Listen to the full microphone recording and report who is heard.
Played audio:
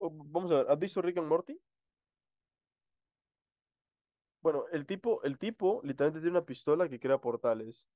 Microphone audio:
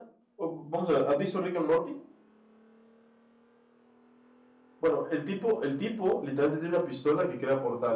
echo only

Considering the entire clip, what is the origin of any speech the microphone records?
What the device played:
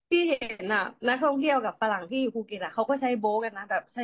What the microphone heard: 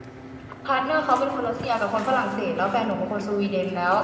user only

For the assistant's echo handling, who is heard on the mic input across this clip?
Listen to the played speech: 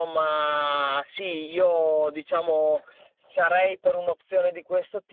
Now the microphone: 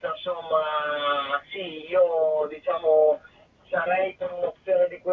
echo only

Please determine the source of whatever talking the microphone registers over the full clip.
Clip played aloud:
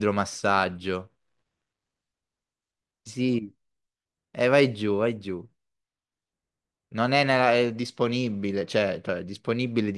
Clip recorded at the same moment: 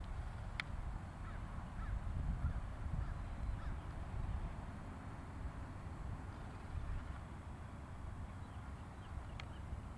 neither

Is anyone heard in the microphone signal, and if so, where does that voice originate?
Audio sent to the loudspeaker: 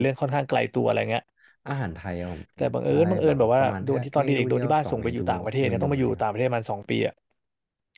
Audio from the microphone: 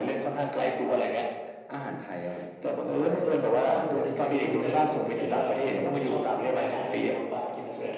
both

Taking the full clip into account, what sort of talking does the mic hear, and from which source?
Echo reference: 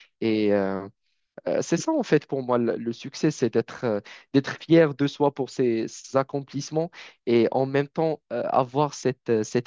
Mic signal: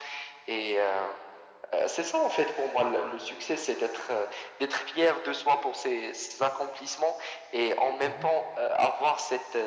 both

